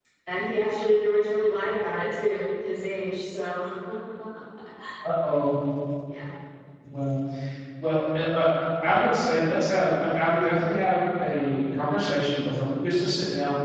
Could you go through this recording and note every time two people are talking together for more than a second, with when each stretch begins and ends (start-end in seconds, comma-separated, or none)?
none